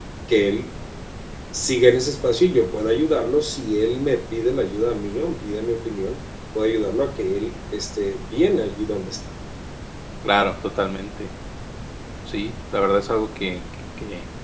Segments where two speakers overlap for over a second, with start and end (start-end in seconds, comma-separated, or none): none